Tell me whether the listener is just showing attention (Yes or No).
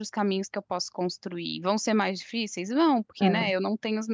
Yes